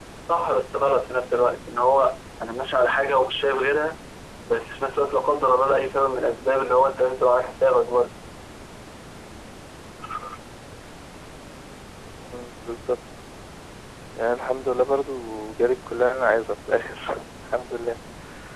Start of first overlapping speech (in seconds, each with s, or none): none